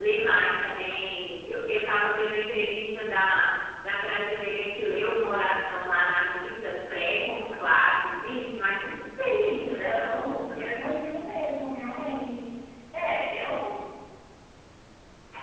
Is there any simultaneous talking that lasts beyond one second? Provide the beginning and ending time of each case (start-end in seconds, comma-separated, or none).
9.4-10.7